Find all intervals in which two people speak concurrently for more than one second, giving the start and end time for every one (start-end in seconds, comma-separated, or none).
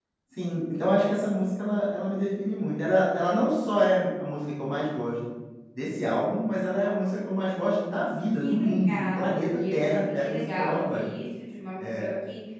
8.4-11.0